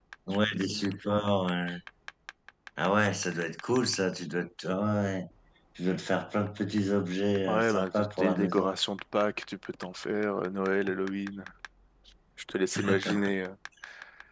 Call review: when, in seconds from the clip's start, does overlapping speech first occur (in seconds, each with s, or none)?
7.5 s